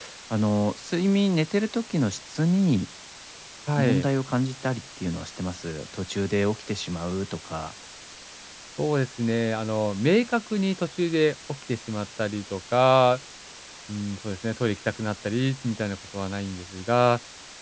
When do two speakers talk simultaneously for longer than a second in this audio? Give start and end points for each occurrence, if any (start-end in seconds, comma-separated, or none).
none